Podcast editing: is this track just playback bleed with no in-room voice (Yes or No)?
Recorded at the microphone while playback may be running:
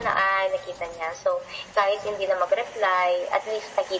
Yes